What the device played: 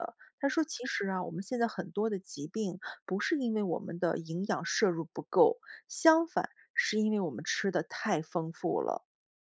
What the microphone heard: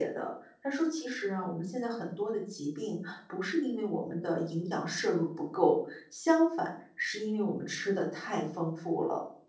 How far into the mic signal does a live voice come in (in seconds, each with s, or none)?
none